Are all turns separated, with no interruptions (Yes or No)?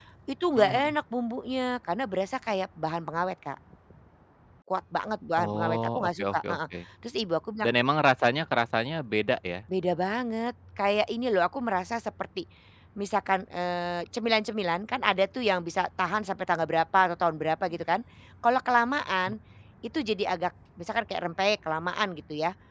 No